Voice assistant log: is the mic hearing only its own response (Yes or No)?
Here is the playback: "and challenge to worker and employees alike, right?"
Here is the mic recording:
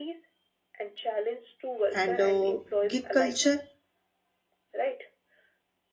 No